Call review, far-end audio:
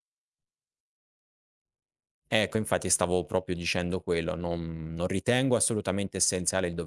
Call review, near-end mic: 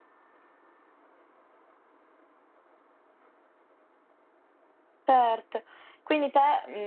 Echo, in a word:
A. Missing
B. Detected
A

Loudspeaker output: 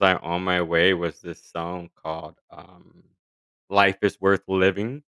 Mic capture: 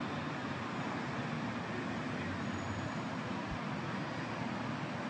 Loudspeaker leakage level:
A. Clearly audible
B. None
B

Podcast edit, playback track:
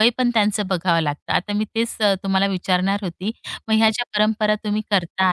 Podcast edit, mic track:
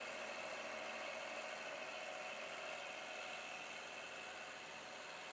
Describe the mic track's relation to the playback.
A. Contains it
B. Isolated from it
B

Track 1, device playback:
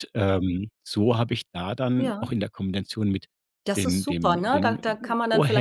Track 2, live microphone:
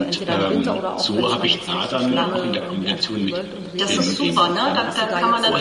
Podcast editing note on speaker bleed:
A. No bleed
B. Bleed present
B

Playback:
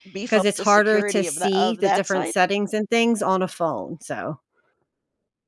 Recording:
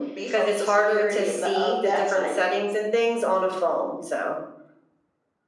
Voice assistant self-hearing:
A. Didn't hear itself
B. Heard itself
B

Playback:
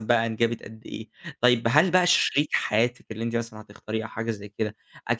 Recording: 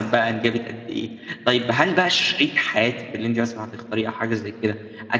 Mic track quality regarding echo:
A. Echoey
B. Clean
A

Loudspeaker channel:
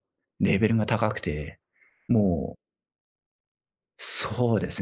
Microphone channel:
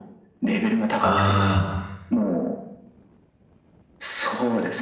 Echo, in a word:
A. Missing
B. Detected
B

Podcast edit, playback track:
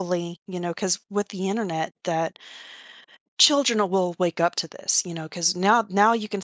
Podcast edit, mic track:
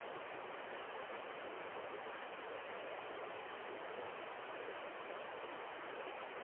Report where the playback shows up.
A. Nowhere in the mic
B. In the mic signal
A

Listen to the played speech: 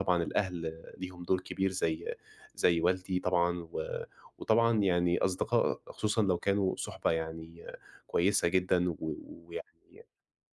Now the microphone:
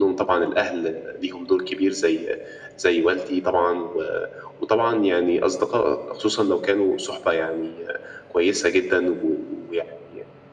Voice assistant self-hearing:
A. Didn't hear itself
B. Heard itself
B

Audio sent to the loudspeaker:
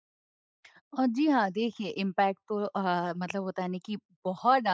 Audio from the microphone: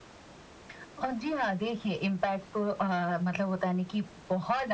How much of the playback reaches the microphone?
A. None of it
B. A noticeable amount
B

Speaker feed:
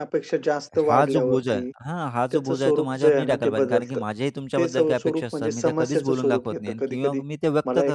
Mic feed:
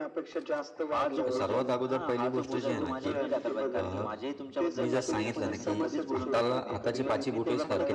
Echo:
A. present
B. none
A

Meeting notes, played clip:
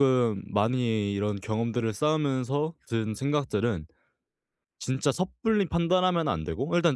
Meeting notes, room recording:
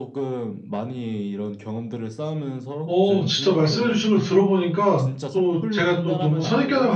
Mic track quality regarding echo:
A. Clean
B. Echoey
B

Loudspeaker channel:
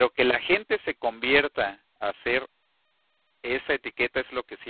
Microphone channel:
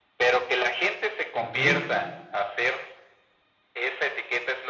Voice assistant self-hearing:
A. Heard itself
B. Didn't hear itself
A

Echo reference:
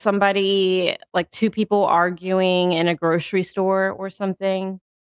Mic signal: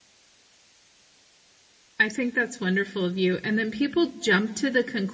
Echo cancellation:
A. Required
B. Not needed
B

